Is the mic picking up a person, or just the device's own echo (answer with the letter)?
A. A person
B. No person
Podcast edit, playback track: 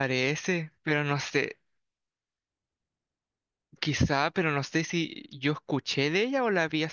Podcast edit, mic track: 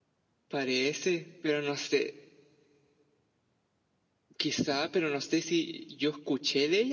B